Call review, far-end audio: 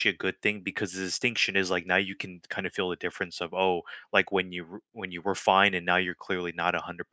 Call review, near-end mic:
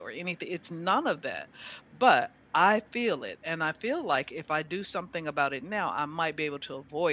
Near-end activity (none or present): present